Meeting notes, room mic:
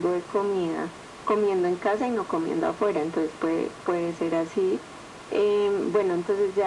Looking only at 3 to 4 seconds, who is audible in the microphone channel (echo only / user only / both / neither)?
echo only